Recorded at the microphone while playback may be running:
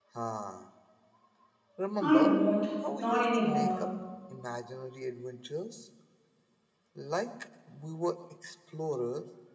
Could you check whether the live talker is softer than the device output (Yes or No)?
No